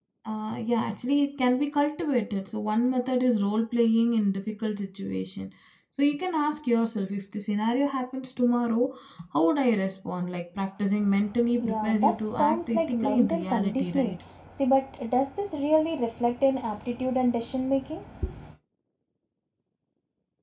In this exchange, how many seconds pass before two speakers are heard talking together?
11.6 s

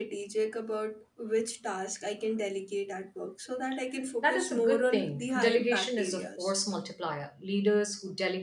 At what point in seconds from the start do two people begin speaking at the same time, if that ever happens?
4.2 s

